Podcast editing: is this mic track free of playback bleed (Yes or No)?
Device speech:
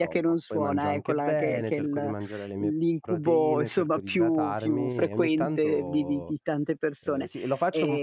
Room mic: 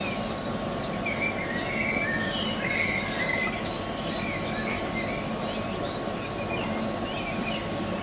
Yes